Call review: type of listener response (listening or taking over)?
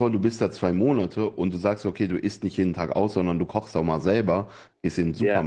listening